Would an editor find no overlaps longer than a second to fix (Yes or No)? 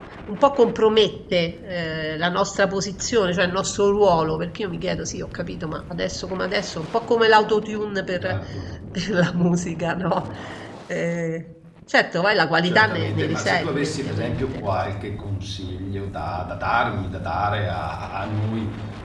No